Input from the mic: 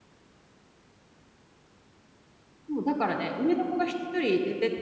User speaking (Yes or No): Yes